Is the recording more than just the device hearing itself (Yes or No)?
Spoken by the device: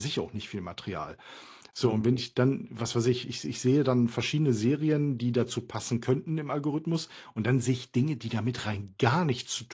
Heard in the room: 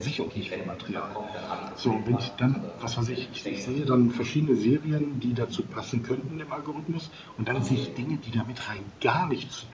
Yes